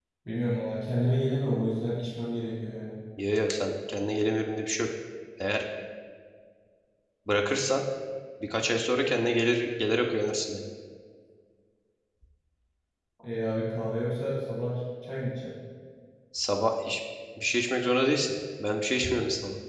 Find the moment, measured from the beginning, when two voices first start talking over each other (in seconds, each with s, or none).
none